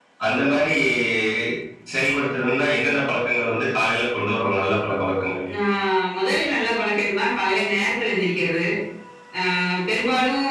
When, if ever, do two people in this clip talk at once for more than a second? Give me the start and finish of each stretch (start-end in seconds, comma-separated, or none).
none